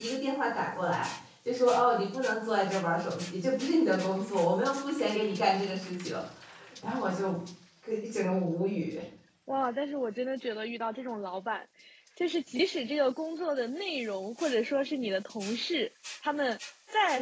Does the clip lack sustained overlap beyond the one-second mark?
Yes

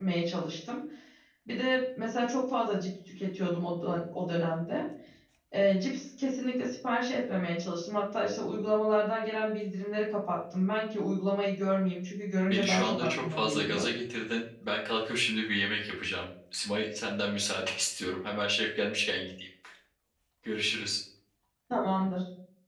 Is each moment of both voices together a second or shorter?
No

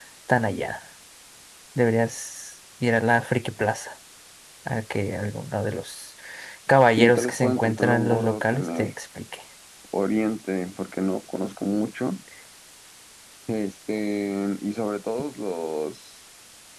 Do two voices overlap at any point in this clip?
Yes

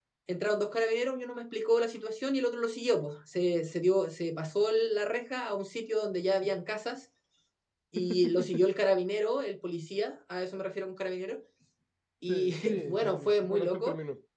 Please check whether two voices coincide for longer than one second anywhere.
Yes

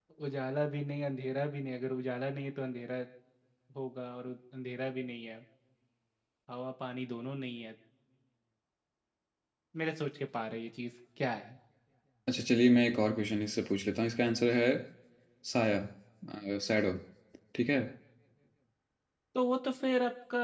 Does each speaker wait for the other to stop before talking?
Yes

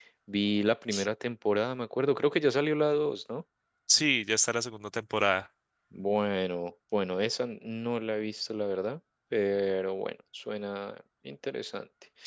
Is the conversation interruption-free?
Yes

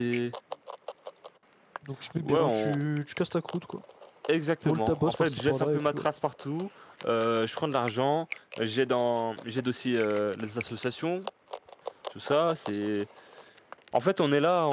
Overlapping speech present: Yes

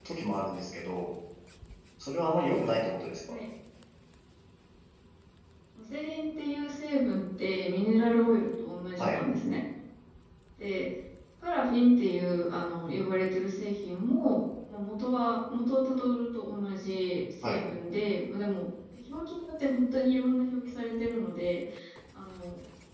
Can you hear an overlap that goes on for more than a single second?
No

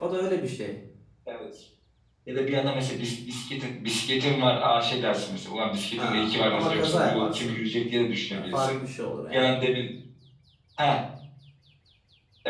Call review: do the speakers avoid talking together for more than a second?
No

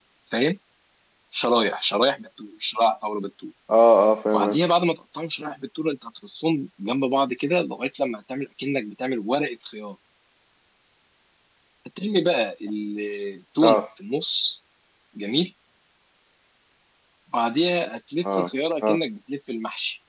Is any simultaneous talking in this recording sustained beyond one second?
No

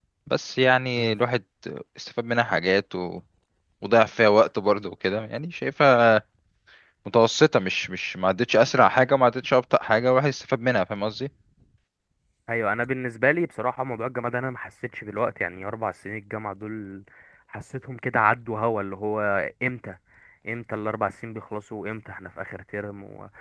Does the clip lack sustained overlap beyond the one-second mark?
Yes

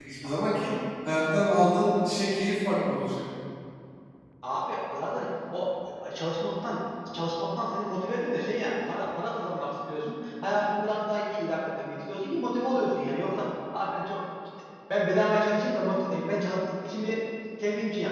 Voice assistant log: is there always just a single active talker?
Yes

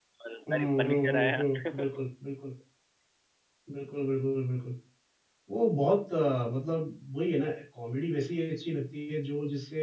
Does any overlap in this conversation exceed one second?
Yes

